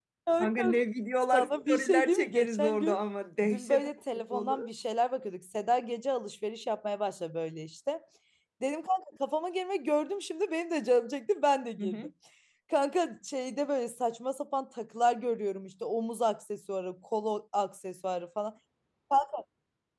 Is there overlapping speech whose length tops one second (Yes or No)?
Yes